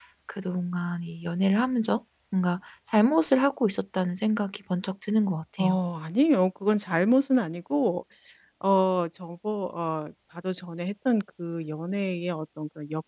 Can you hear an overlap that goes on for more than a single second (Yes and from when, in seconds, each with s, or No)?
No